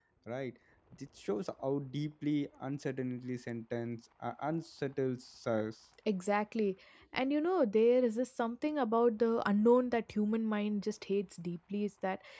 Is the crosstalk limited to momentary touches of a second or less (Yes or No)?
Yes